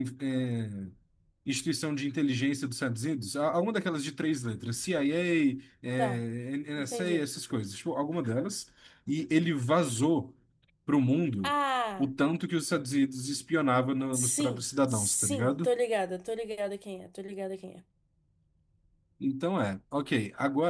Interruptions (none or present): present